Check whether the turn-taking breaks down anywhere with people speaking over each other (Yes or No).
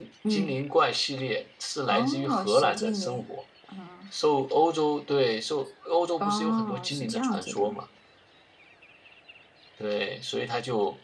Yes